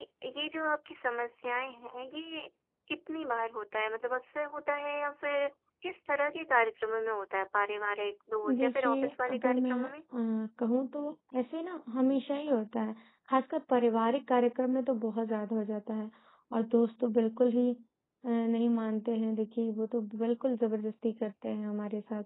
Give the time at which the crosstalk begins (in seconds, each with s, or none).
8.4 s